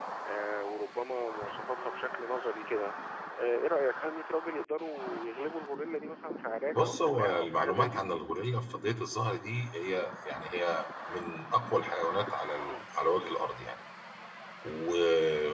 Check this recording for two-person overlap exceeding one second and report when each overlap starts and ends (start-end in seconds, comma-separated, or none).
6.8-8.0